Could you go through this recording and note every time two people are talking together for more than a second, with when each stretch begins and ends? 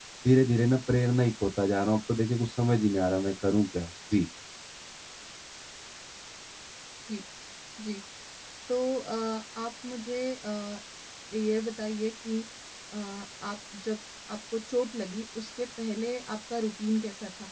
none

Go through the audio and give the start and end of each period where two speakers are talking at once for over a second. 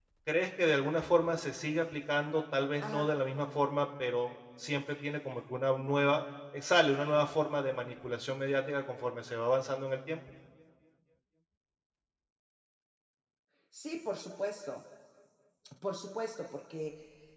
none

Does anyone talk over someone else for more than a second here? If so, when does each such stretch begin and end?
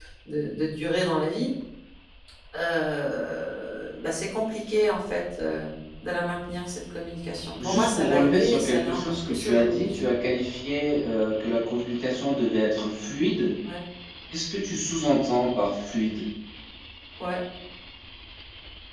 7.6-9.9

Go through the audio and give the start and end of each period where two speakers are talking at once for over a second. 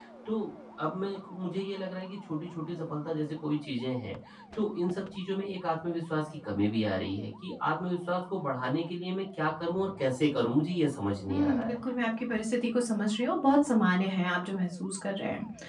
none

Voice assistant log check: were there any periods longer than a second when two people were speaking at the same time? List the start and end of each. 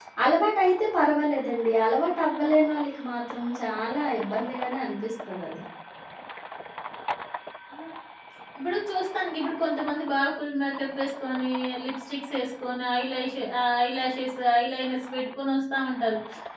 none

